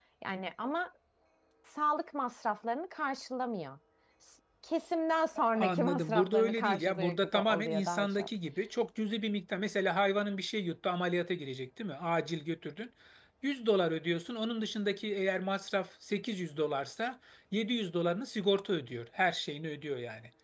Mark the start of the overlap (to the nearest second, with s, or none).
5 s